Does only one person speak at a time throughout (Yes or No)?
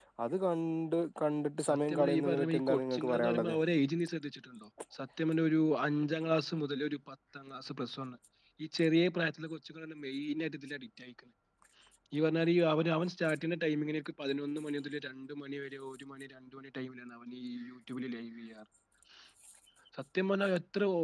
No